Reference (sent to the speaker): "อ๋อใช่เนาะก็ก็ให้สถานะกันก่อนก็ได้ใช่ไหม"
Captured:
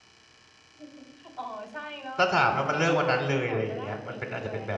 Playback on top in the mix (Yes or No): No